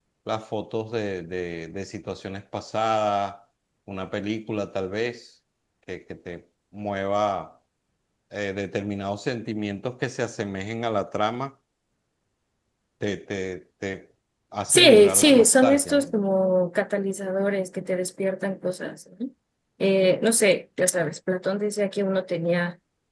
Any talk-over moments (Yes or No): Yes